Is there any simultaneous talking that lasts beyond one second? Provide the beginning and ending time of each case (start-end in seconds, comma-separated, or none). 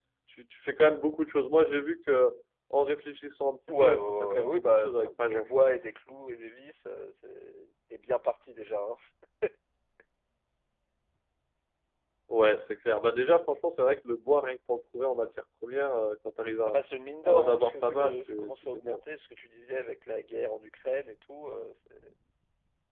3.8-5.5, 17.2-19.0